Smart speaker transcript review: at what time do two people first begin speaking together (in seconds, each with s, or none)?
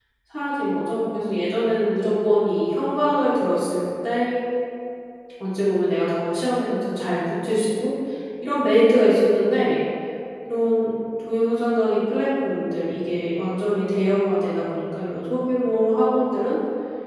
none